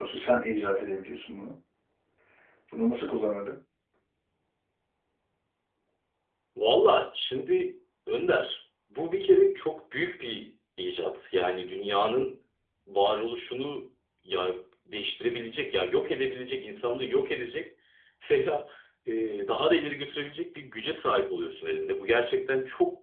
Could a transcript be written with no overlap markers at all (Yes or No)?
Yes